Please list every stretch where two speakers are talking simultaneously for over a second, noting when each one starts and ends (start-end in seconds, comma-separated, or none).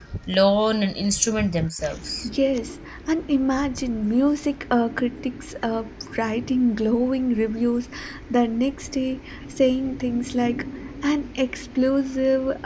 none